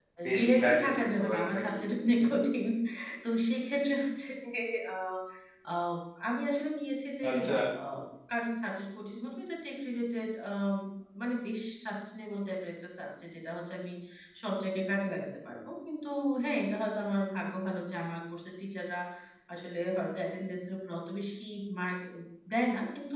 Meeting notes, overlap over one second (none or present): present